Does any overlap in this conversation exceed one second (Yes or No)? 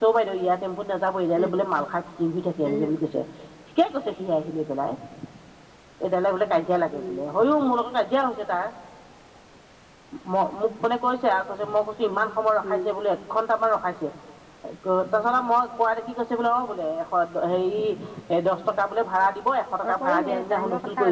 Yes